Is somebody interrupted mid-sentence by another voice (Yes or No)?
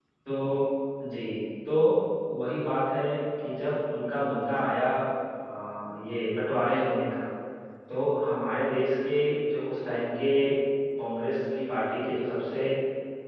No